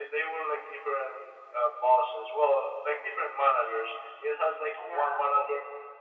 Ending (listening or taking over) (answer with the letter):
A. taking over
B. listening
B